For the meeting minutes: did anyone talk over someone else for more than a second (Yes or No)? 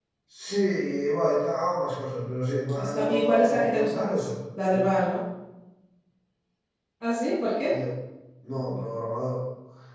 Yes